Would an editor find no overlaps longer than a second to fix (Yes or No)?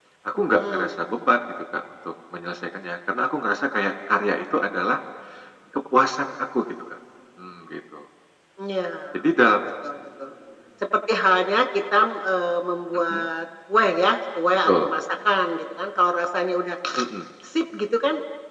Yes